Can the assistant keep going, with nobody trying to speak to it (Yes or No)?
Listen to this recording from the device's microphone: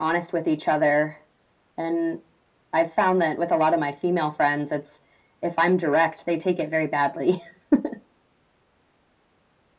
Yes